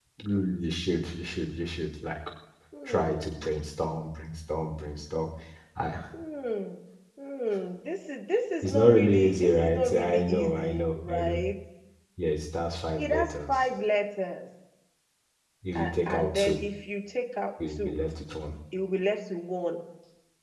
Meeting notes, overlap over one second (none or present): present